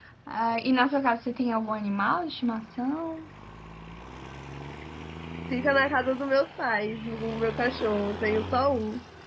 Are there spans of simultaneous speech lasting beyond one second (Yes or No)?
No